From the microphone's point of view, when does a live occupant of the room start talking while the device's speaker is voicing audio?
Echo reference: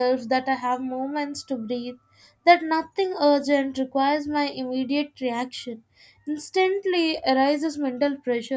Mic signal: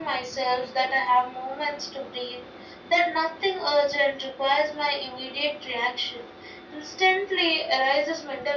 none

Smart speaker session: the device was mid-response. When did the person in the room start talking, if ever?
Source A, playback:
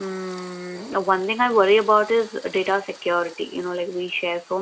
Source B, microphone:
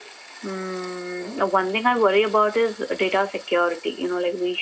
none

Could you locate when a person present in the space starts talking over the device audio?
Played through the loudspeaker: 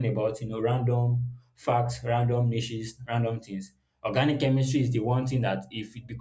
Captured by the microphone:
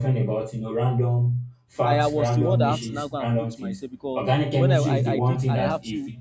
2 s

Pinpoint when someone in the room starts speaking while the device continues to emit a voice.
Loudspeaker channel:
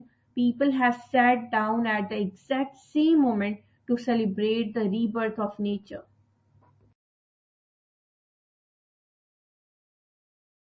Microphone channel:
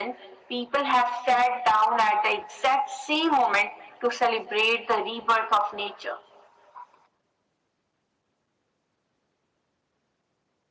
none

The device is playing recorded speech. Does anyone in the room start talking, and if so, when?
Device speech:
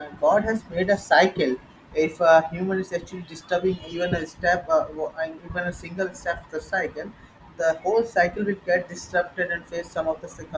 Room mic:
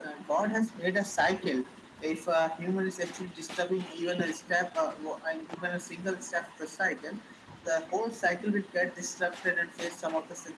none

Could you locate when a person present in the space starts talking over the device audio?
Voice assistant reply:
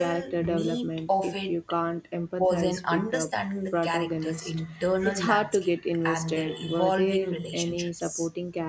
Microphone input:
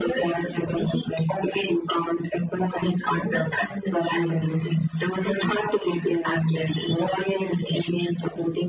none

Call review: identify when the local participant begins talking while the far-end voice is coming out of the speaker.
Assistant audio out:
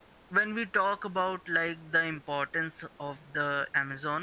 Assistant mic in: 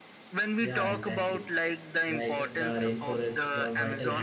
1 s

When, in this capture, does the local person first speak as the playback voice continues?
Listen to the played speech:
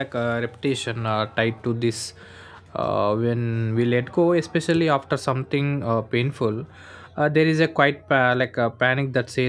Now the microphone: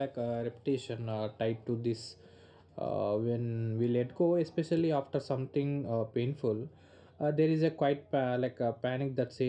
none

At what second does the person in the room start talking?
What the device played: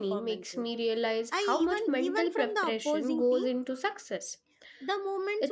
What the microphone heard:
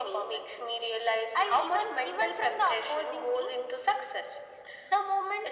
none

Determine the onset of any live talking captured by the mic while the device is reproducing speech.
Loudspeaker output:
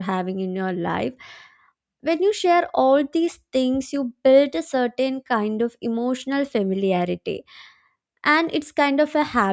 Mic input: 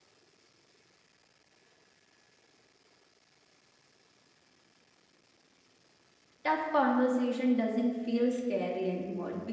6 s

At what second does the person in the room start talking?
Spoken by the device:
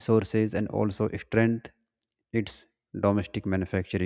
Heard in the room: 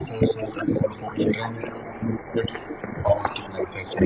none

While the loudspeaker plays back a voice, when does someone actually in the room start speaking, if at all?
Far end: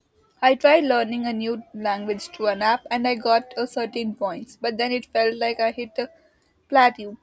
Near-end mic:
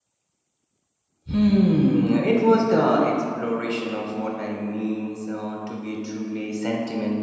1 s

